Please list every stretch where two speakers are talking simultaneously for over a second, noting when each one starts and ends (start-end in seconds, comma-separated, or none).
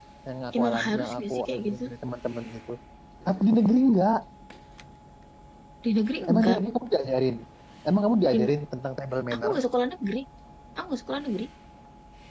0.6-1.8